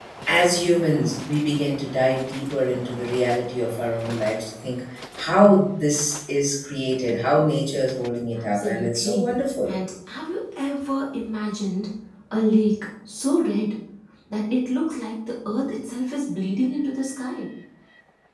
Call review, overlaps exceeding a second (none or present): present